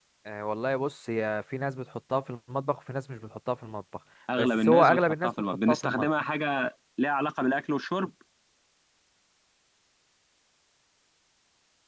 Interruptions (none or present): present